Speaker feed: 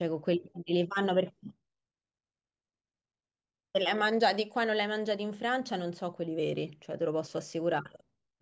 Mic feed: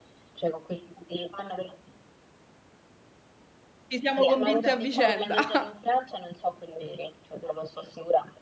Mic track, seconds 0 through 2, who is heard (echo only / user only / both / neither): echo only